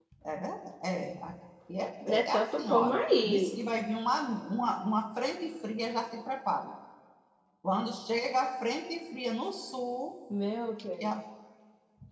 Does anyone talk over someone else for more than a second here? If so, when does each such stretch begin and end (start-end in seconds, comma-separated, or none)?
2.1-3.6